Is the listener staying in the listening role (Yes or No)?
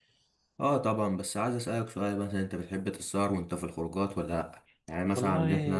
Yes